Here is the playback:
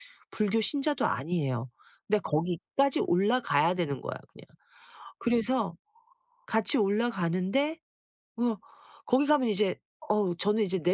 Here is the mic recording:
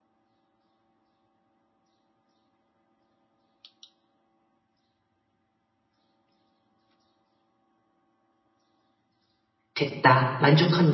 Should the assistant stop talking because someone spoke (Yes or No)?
Yes